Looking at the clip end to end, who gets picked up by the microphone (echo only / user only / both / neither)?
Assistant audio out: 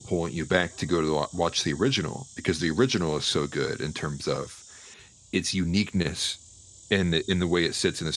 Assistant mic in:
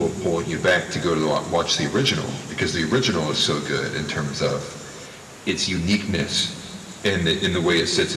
echo only